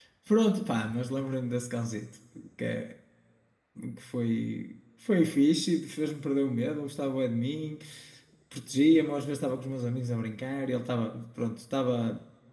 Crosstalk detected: No

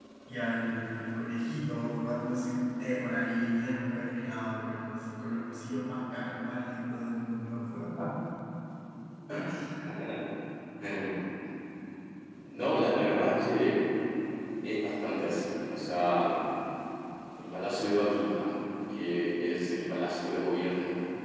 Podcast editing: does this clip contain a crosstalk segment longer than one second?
No

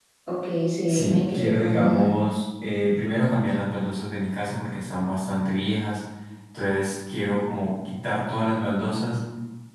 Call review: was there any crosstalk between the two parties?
Yes, from 0.9 s

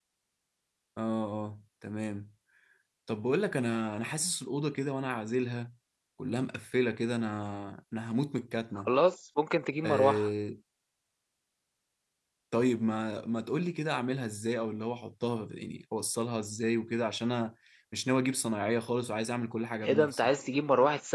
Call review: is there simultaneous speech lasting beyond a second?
No

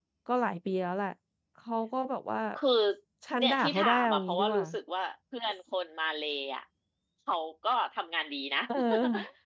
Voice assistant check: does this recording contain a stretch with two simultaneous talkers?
Yes, from 3.4 s

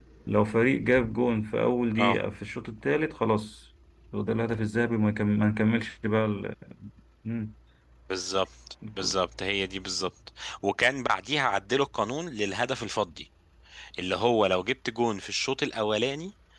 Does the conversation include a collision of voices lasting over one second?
No

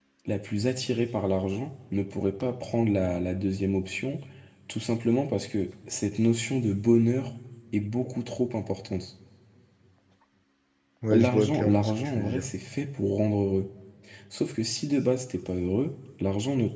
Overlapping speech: Yes, from 11.1 s

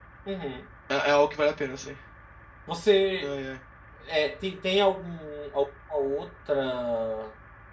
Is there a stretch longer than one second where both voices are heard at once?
No

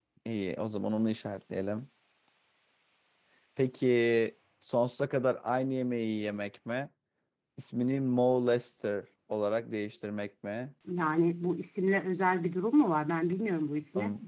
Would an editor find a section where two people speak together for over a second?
No

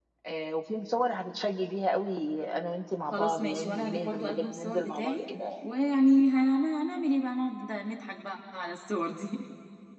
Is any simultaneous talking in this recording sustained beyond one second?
Yes, from 3.1 s

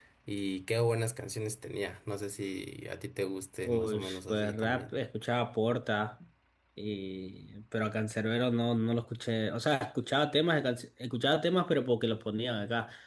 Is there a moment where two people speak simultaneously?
Yes, from 3.6 s

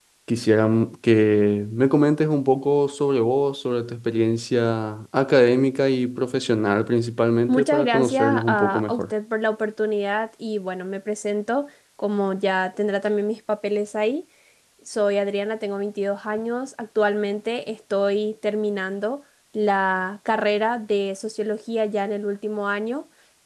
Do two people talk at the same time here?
Yes, from 7.5 s

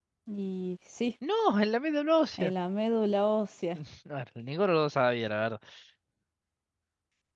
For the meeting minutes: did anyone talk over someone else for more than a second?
No

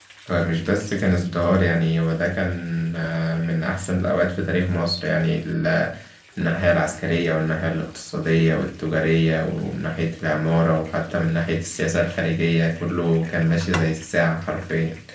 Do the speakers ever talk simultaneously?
No

